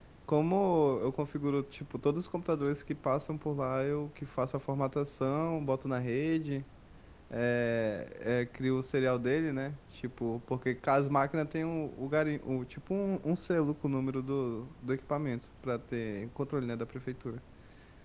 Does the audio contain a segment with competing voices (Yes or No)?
No